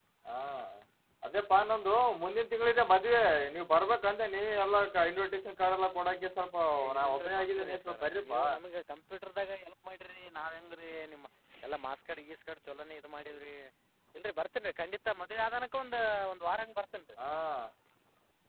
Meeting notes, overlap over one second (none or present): present